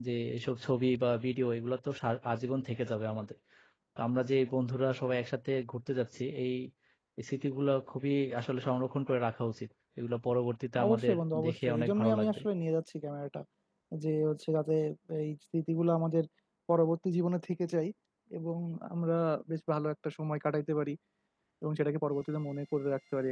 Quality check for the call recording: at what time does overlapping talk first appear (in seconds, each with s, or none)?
10.8 s